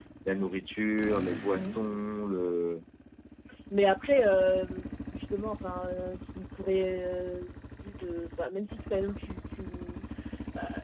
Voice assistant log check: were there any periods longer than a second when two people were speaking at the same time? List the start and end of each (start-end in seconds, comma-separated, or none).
none